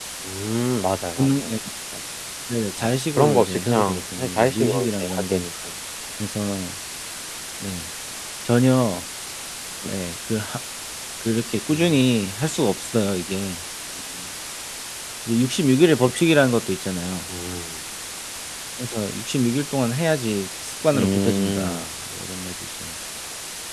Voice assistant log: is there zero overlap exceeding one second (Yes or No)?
No